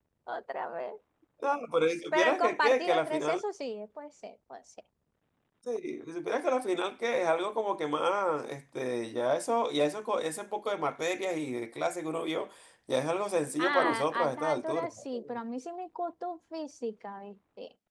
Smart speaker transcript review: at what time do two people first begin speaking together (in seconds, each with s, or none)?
2.1 s